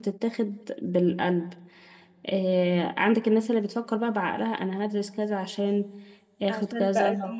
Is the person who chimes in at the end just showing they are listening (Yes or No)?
No